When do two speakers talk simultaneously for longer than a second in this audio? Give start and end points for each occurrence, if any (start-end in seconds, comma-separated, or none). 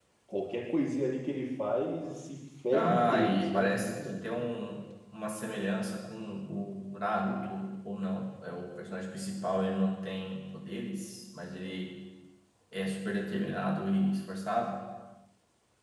2.7-4.2